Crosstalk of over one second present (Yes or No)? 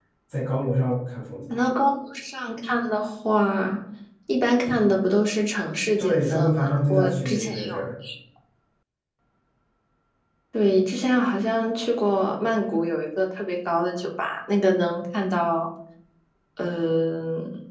Yes